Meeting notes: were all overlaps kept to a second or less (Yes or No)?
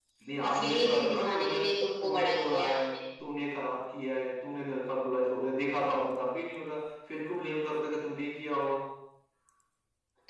No